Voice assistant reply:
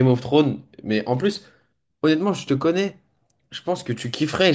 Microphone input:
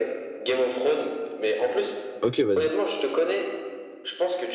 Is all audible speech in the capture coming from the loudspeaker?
No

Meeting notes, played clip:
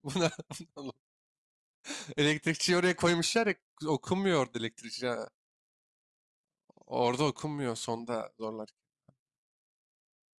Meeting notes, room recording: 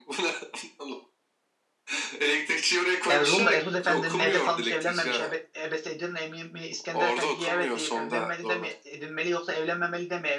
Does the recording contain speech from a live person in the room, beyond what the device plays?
Yes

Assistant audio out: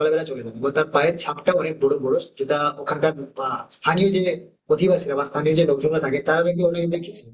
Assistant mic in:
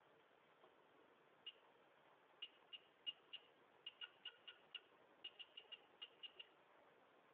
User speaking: No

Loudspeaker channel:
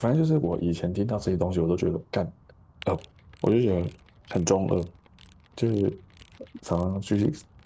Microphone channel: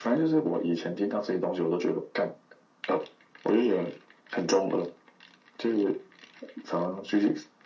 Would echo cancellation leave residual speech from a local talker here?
No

